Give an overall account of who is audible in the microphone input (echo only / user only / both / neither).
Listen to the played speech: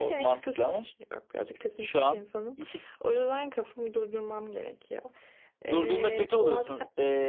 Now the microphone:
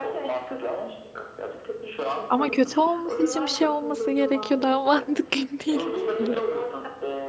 both